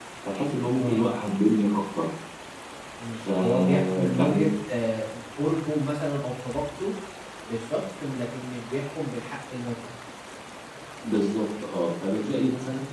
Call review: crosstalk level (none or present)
present